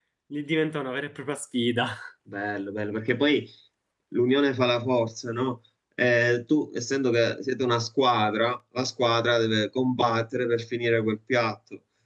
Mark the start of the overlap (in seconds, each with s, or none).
none